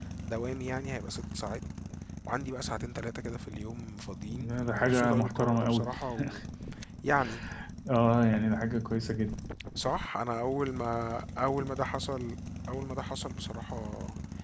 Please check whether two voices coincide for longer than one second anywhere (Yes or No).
Yes